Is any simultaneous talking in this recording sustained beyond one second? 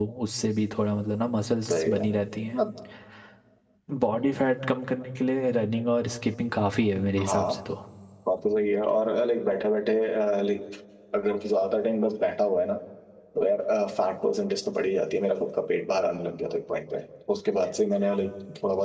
No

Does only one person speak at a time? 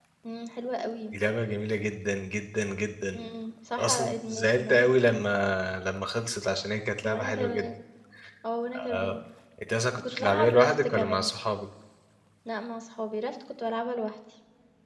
No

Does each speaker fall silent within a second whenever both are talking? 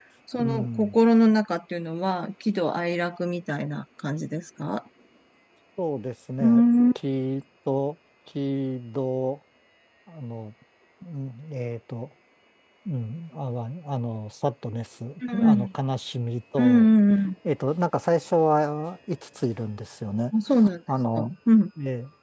Yes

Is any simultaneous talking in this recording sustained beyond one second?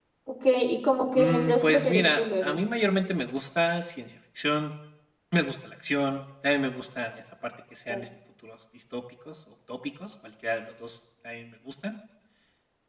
Yes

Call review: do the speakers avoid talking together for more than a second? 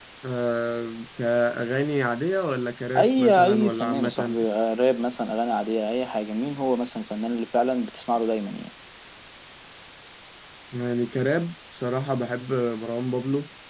No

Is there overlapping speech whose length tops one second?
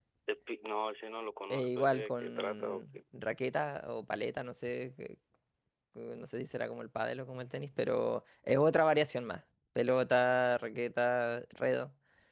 Yes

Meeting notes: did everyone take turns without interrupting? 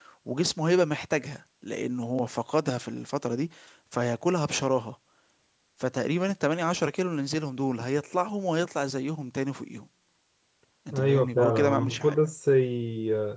No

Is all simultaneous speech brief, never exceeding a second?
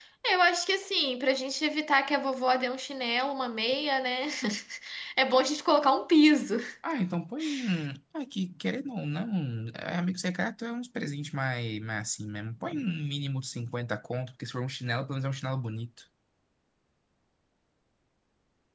Yes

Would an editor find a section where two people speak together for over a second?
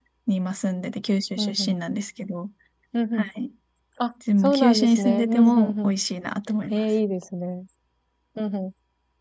Yes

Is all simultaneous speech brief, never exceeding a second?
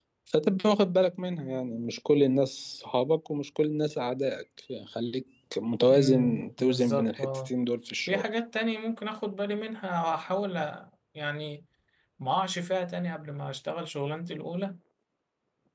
No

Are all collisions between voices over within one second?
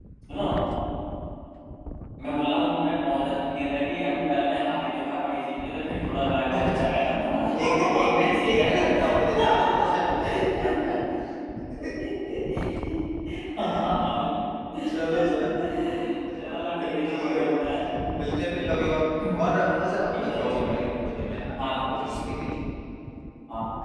No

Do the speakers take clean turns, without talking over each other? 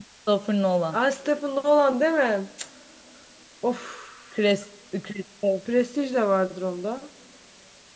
Yes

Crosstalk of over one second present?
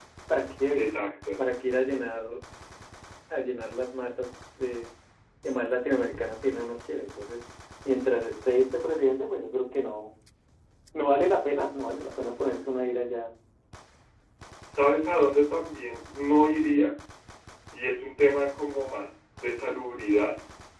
No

